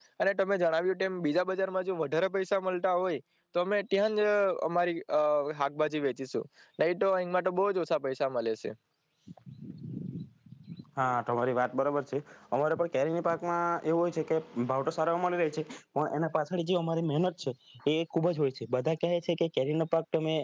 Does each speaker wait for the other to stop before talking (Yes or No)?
Yes